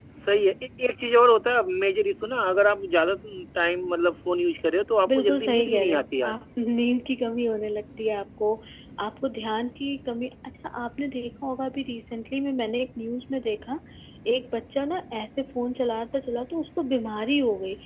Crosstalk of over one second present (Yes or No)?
Yes